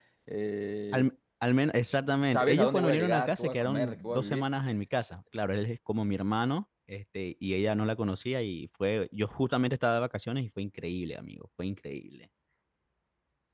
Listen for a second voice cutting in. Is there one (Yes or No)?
Yes